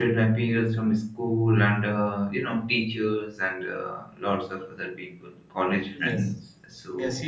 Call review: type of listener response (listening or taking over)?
taking over